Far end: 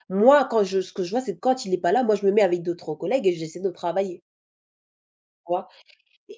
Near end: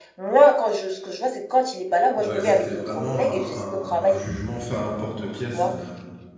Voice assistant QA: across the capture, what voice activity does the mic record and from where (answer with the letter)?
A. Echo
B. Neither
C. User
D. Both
D